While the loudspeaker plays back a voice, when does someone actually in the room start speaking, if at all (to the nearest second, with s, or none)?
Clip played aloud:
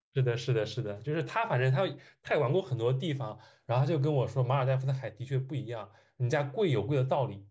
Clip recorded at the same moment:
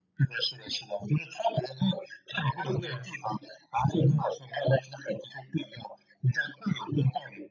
3 s